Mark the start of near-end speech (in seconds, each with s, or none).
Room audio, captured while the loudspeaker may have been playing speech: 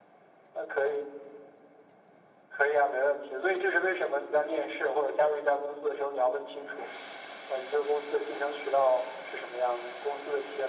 none